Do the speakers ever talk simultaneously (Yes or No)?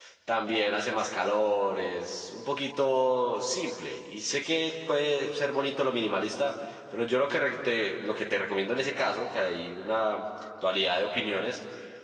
No